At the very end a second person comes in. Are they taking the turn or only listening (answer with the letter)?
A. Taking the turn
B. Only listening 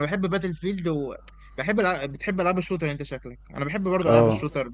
B